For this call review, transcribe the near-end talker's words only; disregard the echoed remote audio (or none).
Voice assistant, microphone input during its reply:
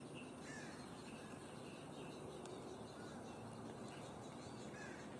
none